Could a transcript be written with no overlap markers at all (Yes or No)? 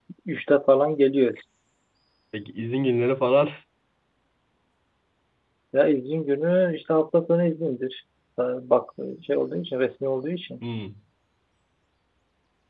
Yes